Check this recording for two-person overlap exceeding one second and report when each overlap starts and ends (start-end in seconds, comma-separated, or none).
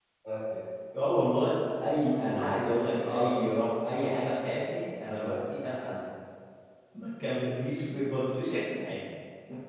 2.1-3.5